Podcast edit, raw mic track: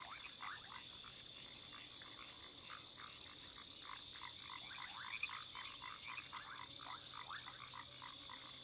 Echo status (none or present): none